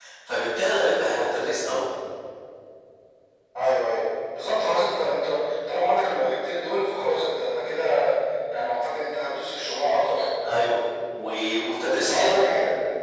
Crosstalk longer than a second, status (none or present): none